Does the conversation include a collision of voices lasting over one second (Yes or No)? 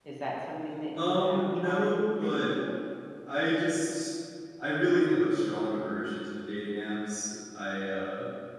Yes